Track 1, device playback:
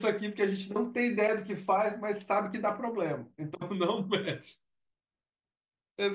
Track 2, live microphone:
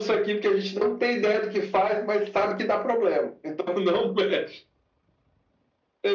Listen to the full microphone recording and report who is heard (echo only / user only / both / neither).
echo only